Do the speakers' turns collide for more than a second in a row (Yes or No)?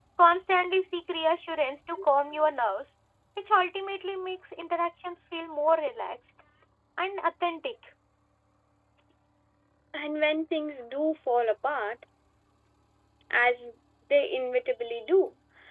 No